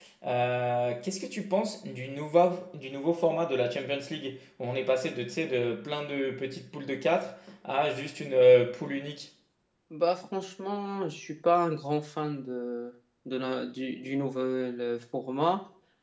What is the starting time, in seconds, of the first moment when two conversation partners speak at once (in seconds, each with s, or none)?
none